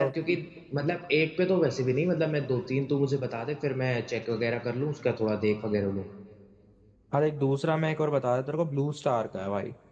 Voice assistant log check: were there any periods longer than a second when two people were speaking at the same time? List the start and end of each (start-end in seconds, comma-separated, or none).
none